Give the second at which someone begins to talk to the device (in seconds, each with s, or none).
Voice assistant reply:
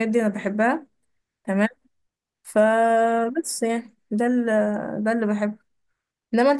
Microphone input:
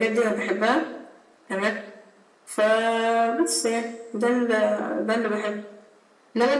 none